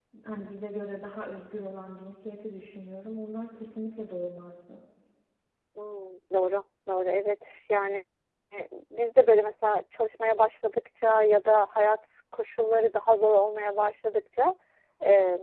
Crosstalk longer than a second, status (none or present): none